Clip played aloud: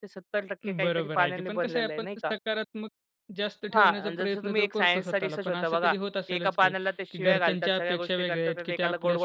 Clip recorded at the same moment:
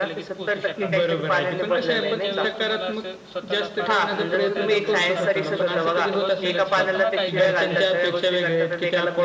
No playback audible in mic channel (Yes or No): No